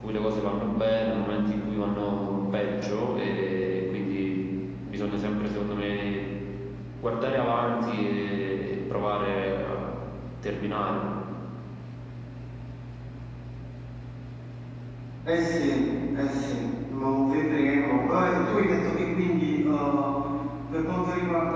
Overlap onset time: none

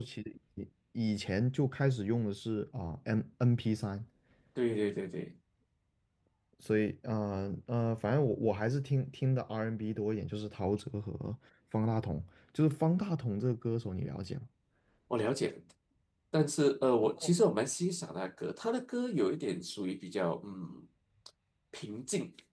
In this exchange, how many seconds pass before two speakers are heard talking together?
none

